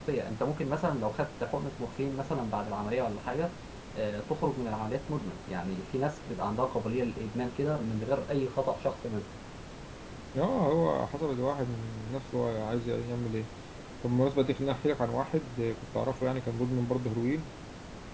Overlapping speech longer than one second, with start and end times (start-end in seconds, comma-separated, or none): none